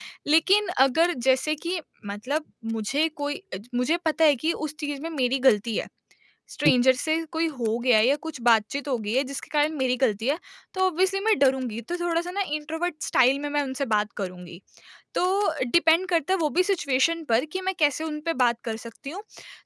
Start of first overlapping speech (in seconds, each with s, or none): none